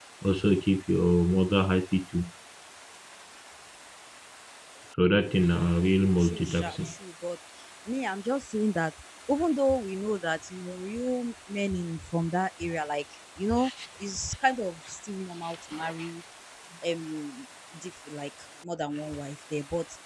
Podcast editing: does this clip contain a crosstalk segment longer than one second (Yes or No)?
Yes